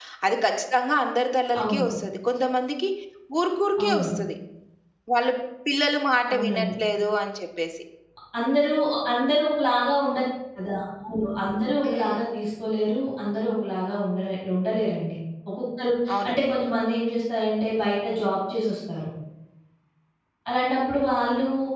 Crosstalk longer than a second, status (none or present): none